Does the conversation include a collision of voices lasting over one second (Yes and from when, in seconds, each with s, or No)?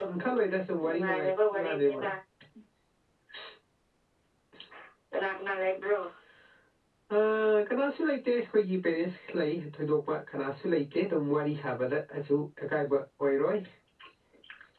Yes, from 0.9 s